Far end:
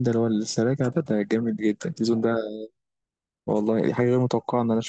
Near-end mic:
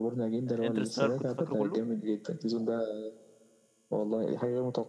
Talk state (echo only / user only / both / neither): both